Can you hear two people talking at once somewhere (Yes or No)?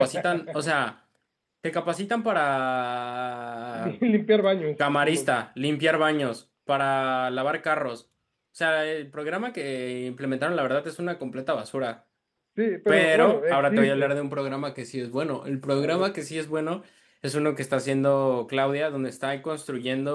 Yes